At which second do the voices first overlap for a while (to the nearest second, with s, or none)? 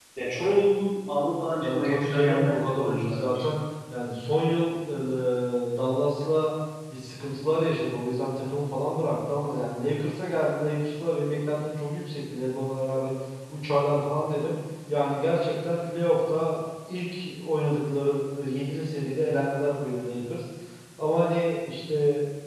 2 s